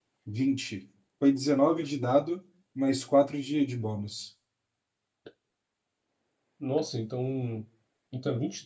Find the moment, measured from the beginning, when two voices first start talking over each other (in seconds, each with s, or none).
none